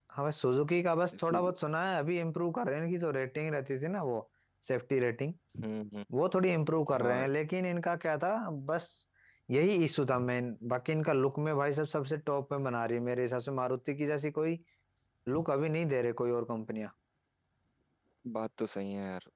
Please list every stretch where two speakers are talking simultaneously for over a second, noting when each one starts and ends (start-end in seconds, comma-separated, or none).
none